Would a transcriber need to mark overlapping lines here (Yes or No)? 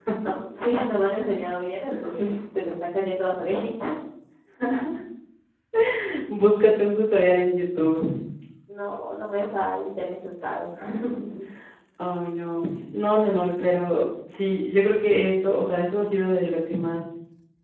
No